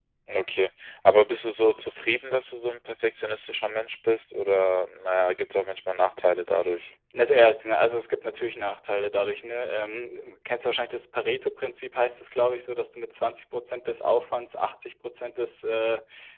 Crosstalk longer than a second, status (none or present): none